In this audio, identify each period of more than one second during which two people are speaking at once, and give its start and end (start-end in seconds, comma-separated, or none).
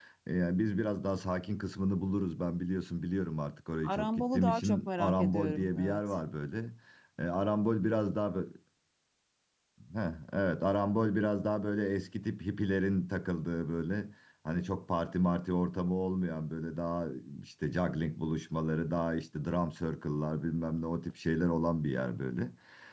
3.8-6.0